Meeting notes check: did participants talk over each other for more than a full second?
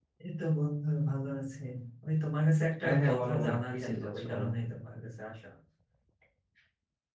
Yes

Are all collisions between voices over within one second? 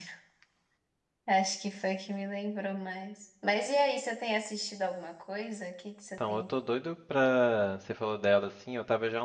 Yes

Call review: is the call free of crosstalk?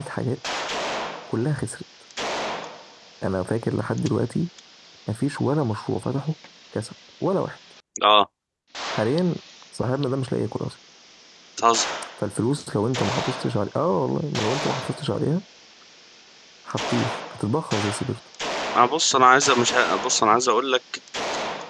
Yes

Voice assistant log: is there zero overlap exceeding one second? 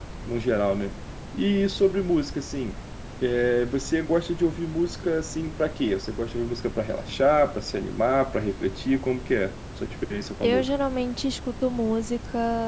Yes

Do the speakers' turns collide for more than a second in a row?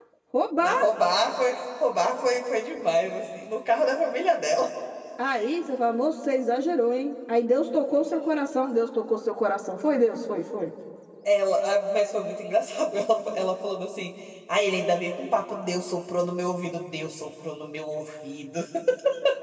No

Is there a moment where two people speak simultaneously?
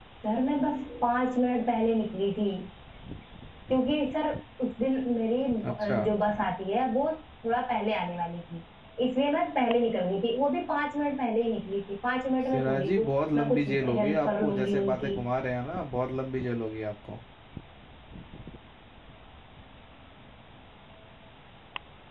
Yes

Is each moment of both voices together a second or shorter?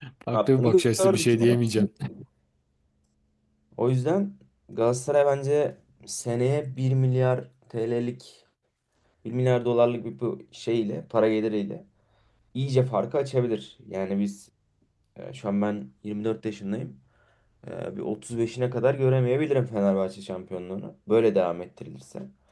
No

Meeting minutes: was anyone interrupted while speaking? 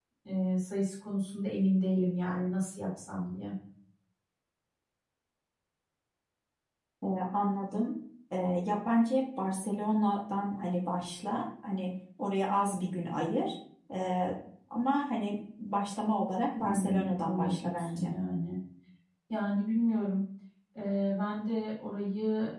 Yes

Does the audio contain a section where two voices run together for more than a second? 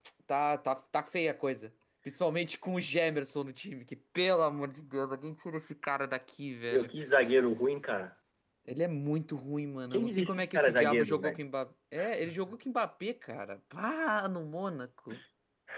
Yes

